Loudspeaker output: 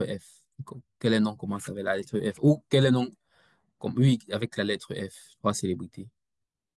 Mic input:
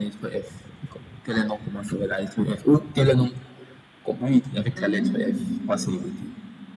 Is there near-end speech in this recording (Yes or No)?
Yes